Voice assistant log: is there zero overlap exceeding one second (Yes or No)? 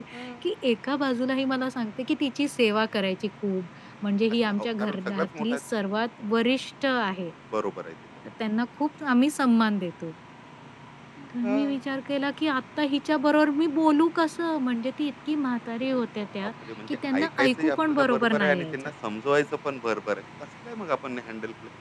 No